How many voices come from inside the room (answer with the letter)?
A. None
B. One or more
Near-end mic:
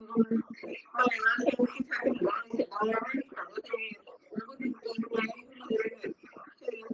A